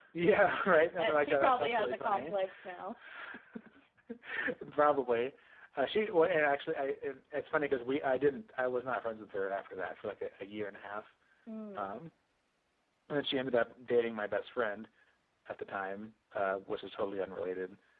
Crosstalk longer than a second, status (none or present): present